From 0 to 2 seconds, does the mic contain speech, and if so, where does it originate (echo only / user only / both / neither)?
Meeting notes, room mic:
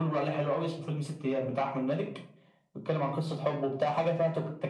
echo only